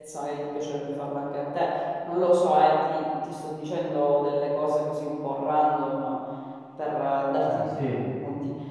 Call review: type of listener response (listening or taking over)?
listening